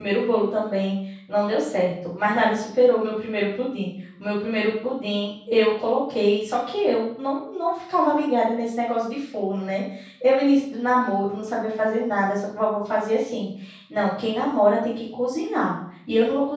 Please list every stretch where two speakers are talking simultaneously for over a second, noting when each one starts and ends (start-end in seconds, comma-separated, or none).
none